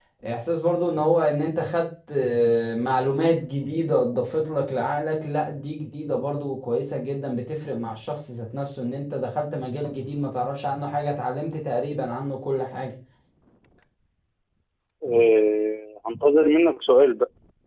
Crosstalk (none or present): none